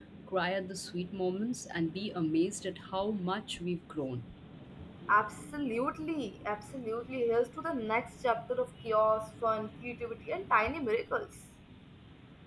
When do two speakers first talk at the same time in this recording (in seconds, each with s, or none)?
none